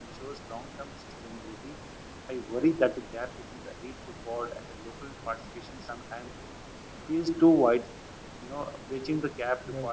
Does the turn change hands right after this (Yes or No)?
No